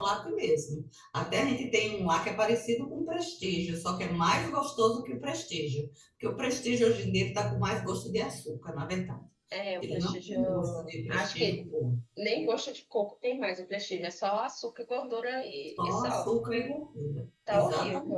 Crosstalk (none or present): present